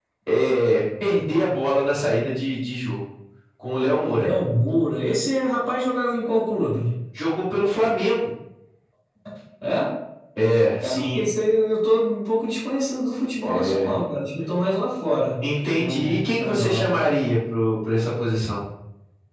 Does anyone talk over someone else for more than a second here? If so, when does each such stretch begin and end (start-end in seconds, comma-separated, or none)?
15.7-17.0